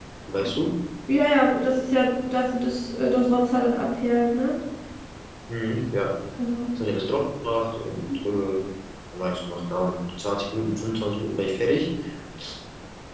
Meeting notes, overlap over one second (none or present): none